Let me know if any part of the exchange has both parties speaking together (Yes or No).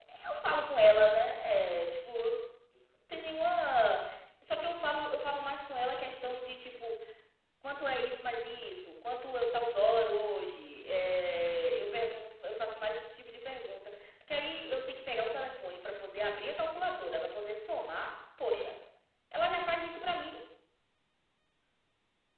No